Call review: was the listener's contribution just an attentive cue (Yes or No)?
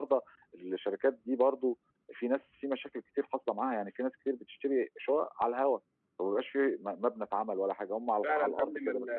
No